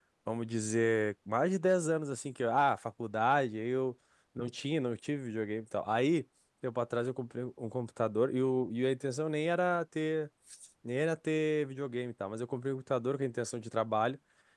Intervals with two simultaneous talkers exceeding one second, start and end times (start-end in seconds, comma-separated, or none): none